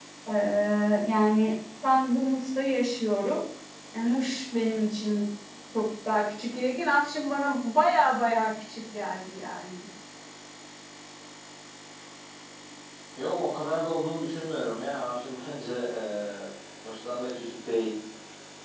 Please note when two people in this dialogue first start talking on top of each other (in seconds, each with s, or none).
none